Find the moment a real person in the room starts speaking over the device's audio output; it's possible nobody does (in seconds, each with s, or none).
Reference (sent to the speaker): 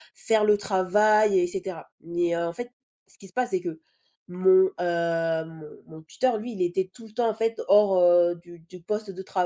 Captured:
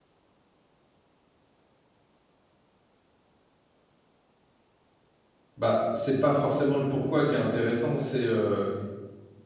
5.6 s